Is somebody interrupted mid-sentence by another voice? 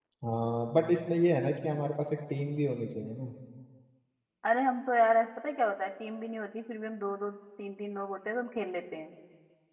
No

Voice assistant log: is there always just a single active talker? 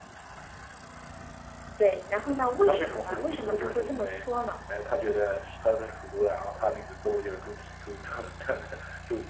No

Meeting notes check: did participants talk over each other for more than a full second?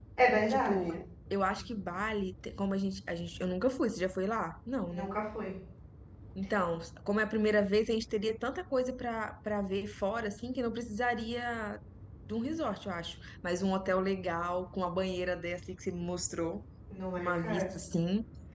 No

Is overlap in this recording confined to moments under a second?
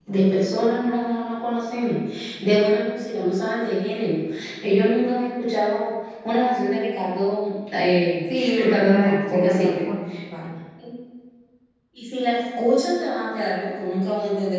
No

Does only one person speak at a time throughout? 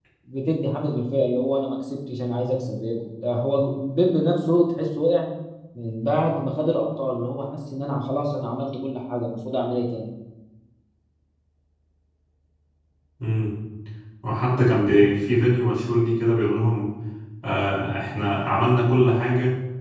Yes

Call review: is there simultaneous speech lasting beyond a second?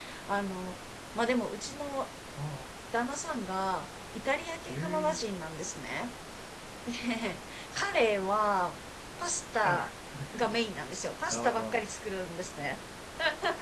No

